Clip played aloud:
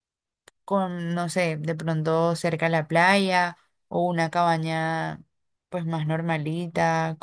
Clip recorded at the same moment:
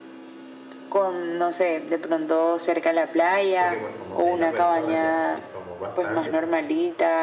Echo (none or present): present